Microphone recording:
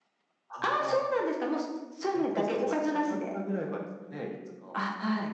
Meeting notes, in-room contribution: present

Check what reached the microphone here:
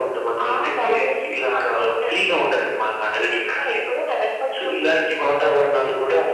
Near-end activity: none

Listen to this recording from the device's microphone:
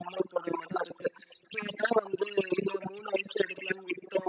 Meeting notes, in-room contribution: none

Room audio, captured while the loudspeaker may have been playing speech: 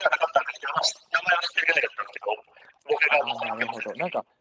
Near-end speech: present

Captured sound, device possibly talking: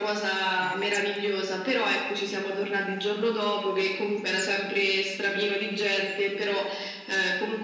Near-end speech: present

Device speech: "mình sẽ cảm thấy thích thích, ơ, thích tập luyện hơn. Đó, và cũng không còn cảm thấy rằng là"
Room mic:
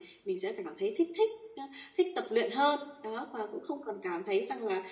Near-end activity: none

